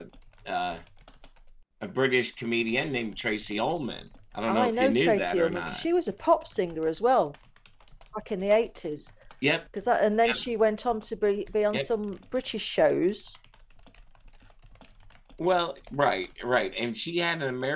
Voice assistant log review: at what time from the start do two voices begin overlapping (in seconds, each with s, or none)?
4.5 s